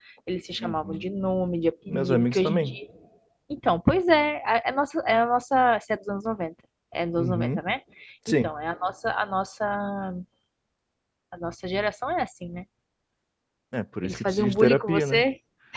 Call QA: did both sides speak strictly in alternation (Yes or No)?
No